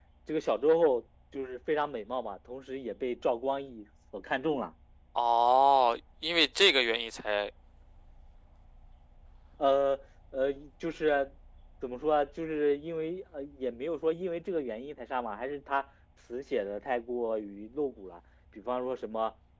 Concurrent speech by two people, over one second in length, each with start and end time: none

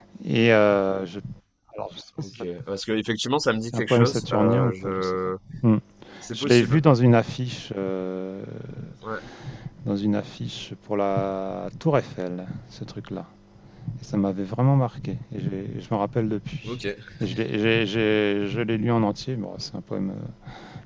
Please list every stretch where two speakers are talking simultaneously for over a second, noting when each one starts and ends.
3.7-5.2

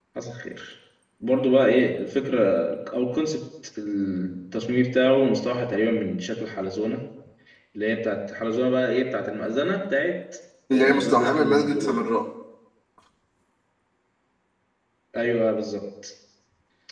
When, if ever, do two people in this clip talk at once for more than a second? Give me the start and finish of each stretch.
10.7-12.0

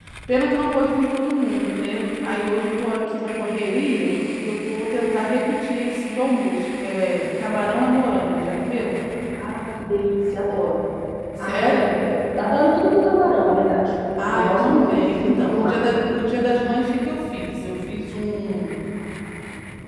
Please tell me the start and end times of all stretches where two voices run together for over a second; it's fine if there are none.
14.3-15.8

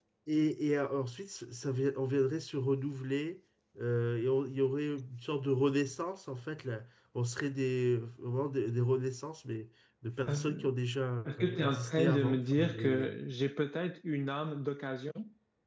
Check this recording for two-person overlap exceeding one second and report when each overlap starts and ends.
11.4-13.2

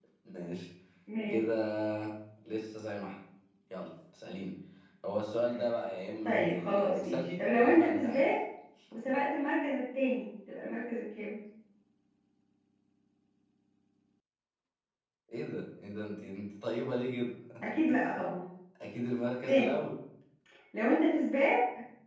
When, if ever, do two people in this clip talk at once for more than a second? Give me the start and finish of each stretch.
6.2-8.2

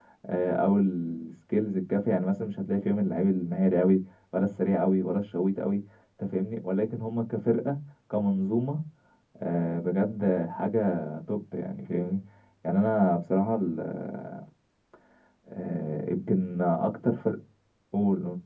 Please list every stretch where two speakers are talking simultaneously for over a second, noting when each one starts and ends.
none

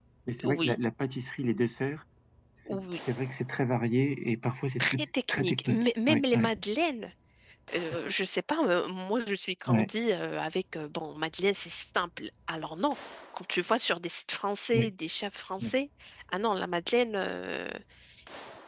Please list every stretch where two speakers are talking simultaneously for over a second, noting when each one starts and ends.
4.8-6.5

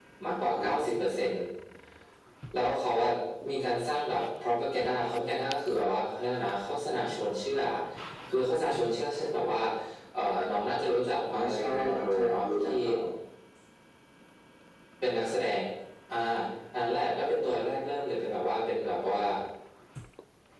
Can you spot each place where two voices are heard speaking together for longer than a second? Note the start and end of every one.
11.3-12.7

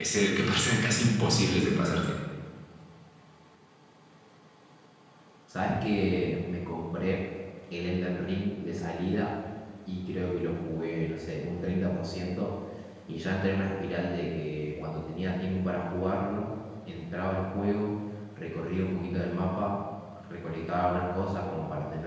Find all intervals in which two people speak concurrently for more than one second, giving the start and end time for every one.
none

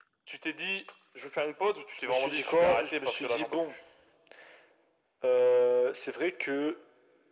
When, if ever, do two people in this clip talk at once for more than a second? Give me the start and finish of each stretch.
1.9-3.7

